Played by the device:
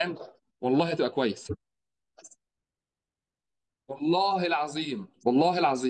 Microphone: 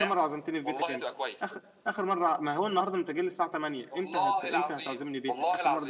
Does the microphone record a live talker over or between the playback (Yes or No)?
Yes